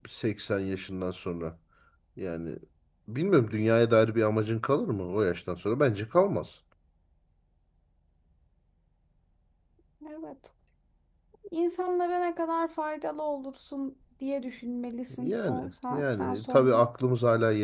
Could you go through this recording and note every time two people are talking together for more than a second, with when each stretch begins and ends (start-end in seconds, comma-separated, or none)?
15.2-16.8